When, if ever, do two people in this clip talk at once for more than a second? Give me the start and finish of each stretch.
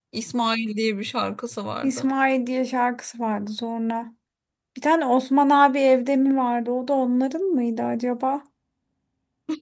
none

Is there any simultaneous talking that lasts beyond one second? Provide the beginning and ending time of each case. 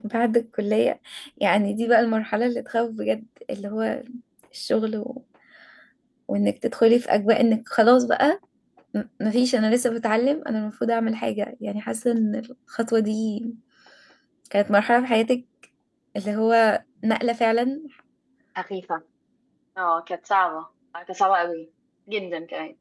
none

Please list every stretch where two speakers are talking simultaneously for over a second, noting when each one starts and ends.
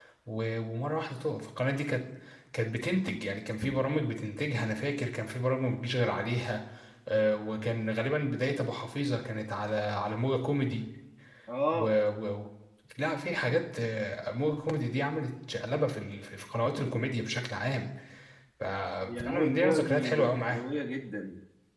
19.2-20.6

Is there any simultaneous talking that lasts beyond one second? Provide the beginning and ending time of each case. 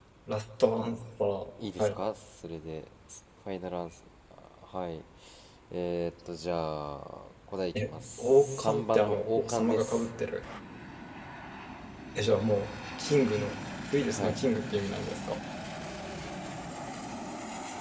7.8-10.1

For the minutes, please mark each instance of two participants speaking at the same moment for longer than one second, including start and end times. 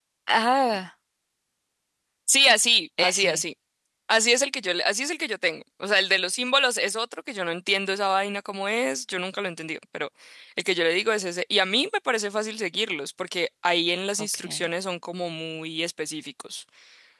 none

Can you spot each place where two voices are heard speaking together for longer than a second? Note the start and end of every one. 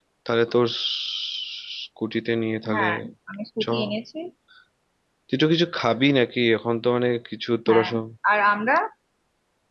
none

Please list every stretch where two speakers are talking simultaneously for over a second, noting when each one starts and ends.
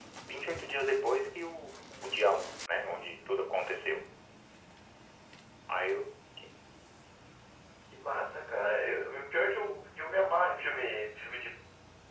none

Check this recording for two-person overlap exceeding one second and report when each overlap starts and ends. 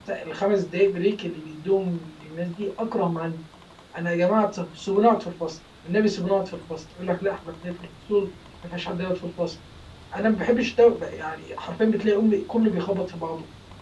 none

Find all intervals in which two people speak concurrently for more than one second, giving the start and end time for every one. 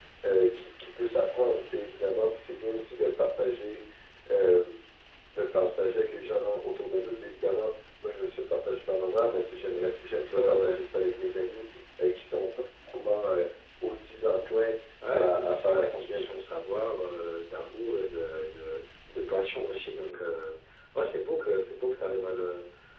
15.1-16.3

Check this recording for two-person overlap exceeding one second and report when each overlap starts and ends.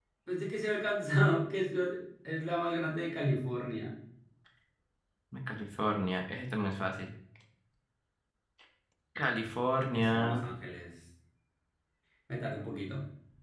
none

